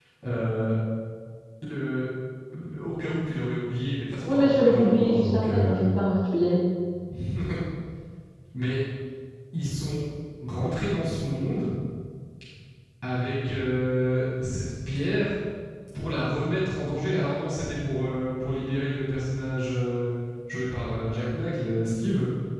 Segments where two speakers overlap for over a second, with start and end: 4.2-5.8

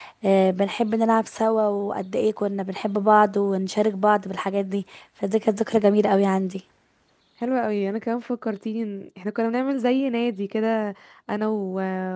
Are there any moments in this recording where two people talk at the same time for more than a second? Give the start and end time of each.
none

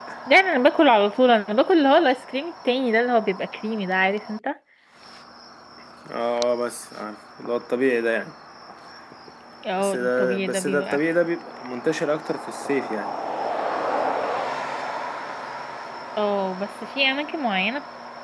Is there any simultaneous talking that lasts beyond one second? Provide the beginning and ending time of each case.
9.8-11.0

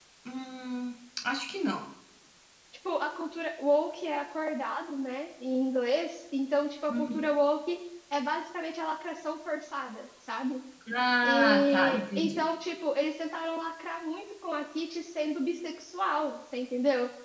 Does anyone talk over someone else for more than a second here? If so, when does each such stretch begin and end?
11.2-12.4

